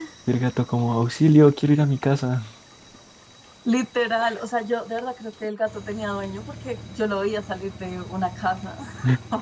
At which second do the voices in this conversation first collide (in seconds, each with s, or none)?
none